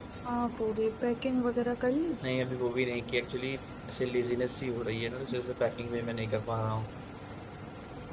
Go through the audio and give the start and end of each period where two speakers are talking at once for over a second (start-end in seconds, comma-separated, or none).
none